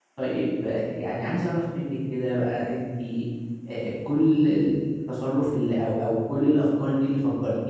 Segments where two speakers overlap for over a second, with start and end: none

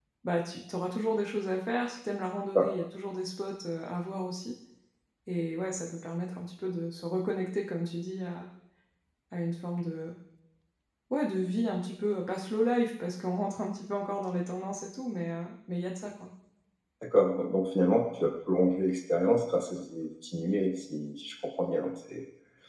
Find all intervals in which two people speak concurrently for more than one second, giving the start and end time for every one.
none

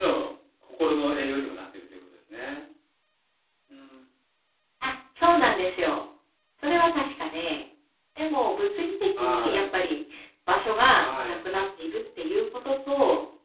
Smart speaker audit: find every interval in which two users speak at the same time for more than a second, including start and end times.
none

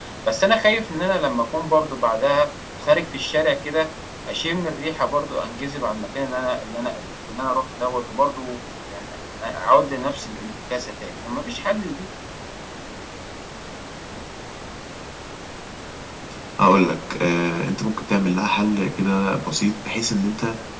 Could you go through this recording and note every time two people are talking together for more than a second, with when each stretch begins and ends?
none

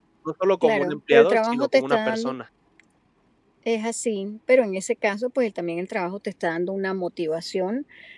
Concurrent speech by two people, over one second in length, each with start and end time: 0.6-2.3

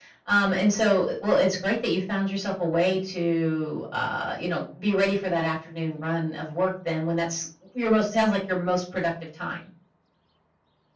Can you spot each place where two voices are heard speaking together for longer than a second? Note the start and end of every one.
none

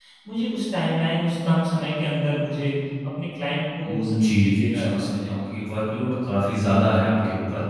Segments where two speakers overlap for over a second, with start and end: 3.8-5.3

